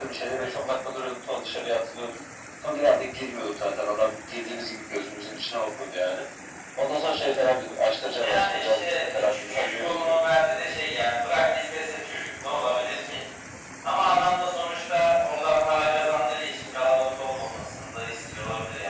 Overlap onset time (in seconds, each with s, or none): 8.1 s